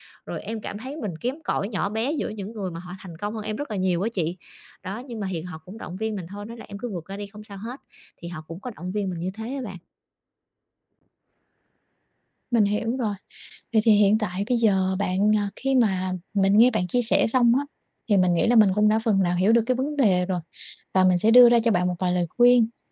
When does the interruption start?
none

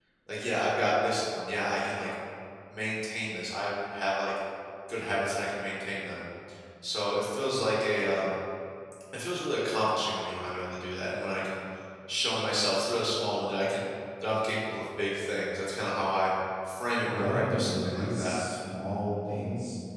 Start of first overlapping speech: 17.0 s

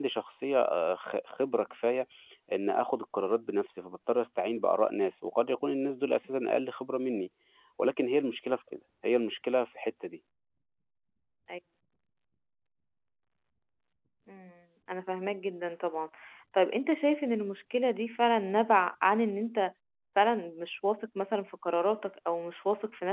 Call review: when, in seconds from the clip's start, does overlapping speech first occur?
none

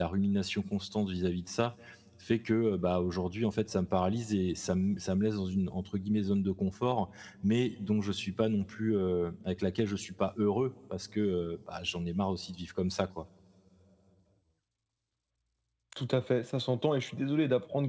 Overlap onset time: none

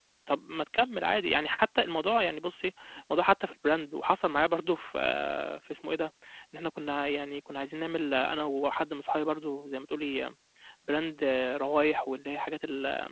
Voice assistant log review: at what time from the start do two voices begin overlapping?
none

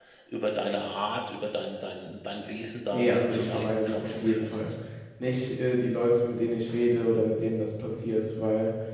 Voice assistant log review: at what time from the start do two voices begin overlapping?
2.9 s

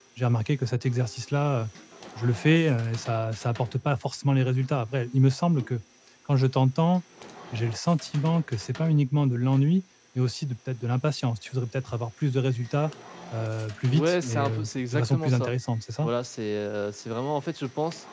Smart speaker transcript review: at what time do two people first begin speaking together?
13.9 s

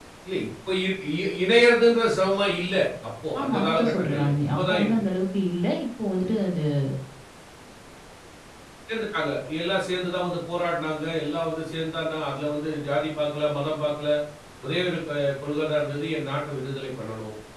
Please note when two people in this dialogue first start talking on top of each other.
3.3 s

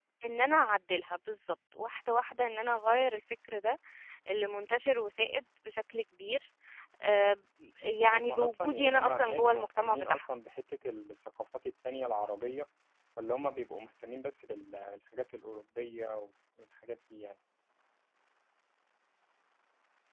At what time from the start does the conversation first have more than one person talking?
8.0 s

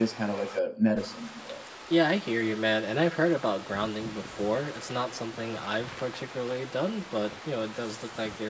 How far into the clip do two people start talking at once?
none

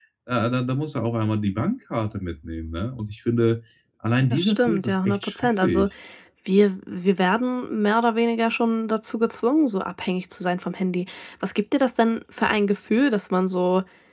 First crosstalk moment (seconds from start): 4.3 s

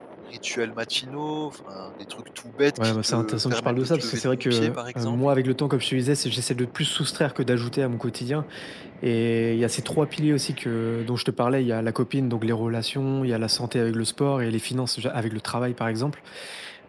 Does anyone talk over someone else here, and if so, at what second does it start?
2.8 s

